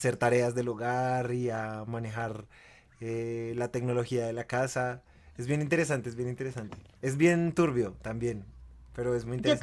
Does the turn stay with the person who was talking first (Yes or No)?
No